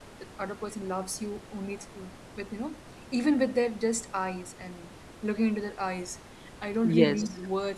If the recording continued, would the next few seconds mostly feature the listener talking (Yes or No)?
No